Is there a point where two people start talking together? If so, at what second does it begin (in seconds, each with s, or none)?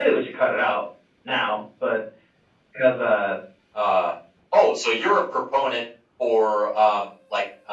none